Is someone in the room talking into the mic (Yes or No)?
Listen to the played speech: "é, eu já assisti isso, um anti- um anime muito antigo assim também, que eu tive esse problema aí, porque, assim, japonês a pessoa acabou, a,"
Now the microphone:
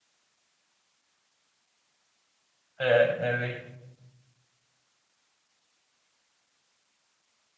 Yes